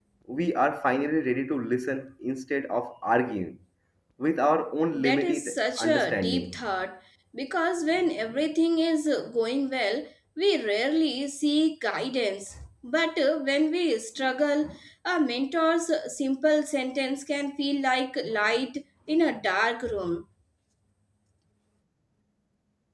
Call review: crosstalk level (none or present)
present